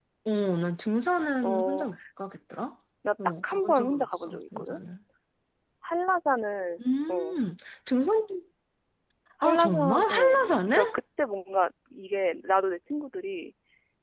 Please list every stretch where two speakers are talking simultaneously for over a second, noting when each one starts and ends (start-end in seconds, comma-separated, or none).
3.4-4.8, 9.4-10.9